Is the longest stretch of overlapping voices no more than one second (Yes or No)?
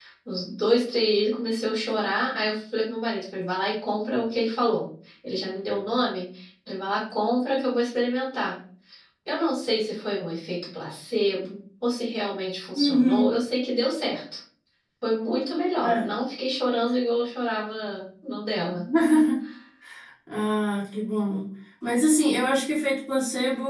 Yes